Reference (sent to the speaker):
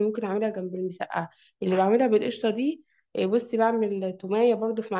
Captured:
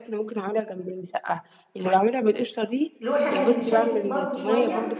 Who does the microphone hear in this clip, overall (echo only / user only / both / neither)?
both